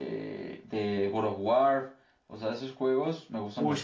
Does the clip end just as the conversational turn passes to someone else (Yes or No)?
Yes